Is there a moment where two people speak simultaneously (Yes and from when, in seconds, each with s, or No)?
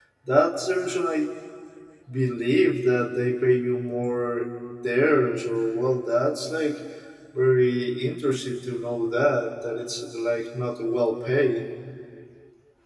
No